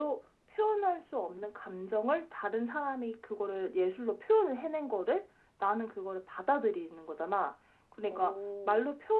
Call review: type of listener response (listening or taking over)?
listening